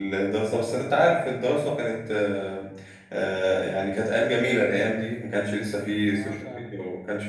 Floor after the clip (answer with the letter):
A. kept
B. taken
A